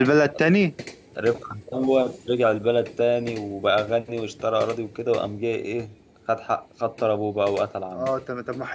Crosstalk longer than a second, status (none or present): none